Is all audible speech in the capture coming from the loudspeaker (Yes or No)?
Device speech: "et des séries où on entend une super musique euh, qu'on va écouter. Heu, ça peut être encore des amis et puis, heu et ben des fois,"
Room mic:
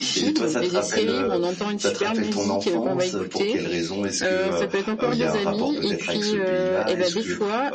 No